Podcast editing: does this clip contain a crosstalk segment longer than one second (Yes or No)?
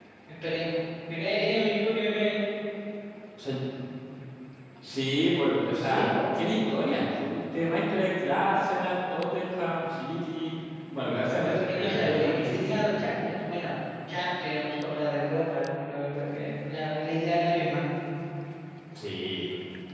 Yes